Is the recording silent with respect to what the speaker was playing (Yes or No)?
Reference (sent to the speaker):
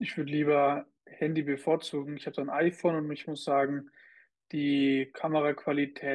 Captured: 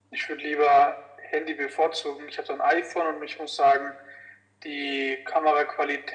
No